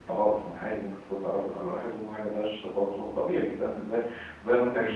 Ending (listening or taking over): listening